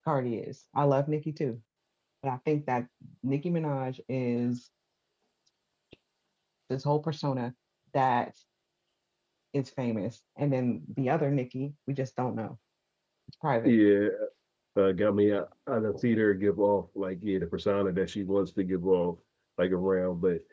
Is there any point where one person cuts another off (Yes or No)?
No